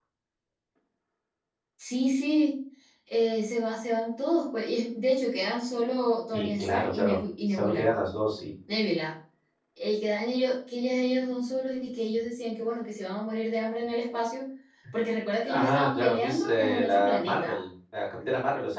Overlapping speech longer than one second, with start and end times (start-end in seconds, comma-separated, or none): 6.3-7.9, 15.5-17.6